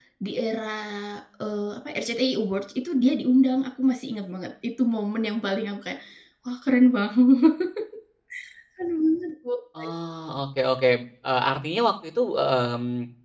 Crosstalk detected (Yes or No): No